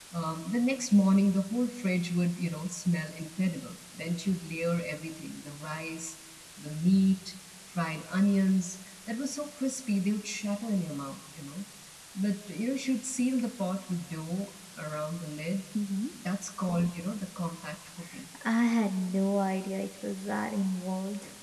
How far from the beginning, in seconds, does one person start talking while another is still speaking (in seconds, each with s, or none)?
none